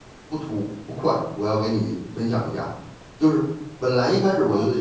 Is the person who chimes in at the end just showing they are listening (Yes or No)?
Yes